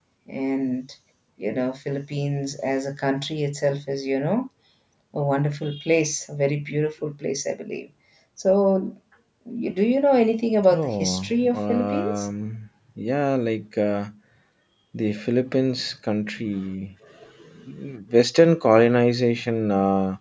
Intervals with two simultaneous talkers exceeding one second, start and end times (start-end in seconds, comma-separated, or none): 10.7-12.3